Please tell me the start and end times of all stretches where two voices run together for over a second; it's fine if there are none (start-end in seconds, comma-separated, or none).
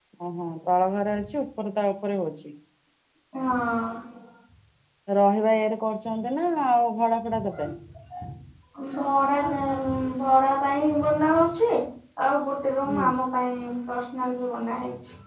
none